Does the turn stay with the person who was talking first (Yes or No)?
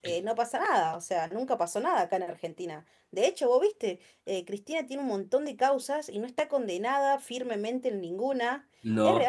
Yes